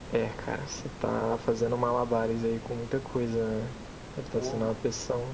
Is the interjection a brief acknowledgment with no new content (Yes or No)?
Yes